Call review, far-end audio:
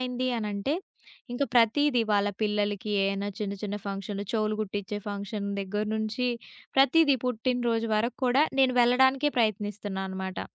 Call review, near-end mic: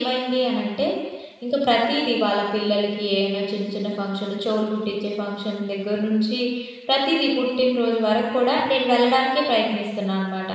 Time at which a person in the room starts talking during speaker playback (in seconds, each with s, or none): none